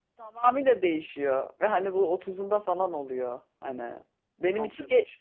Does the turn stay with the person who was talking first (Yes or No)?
Yes